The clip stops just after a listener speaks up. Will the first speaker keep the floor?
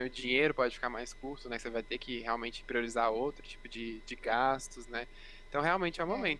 Yes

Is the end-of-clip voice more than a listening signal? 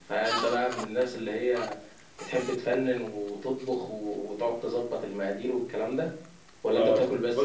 Yes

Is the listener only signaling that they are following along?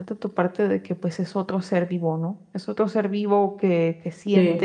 Yes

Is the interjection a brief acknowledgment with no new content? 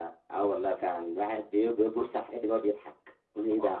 Yes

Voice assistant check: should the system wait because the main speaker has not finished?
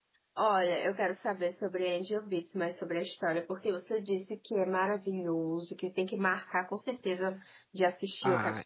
No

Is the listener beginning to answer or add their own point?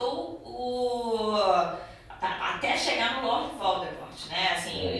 No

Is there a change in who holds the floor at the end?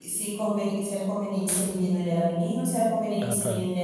No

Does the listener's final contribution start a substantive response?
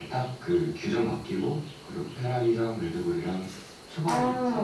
Yes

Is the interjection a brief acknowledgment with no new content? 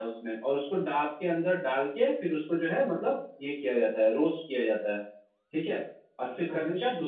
Yes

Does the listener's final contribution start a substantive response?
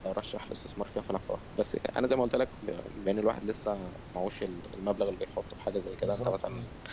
No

